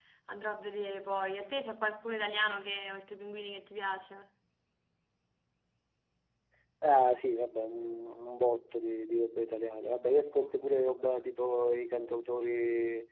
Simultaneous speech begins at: none

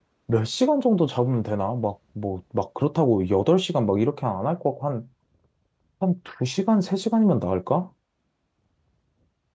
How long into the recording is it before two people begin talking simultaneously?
none

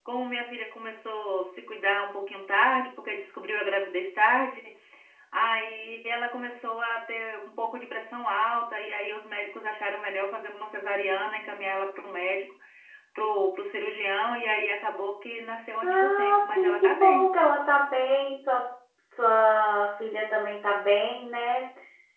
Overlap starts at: 16 s

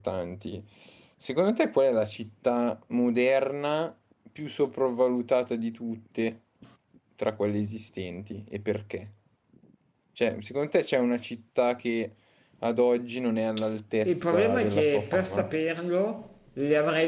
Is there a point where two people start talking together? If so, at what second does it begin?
14 s

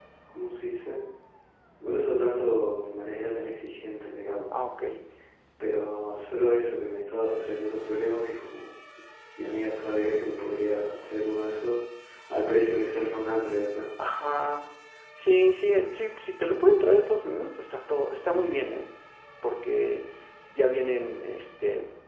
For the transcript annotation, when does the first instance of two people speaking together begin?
none

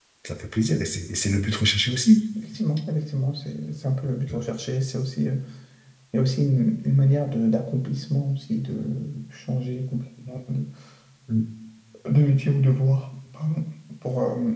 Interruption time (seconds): none

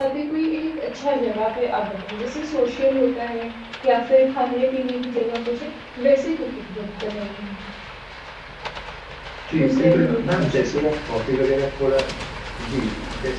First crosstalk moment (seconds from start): 10 s

